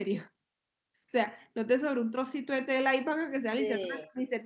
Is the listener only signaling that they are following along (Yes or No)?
Yes